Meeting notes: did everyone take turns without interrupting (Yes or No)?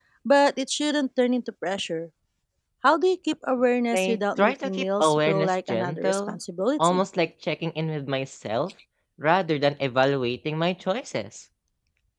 No